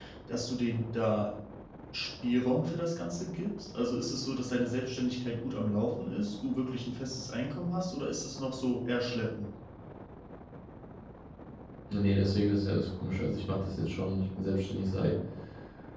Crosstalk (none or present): none